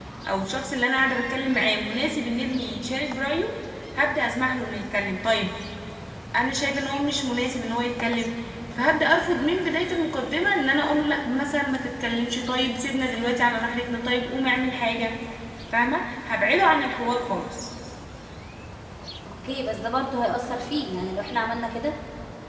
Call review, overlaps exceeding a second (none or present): none